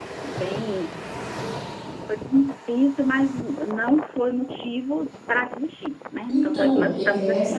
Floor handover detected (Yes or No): Yes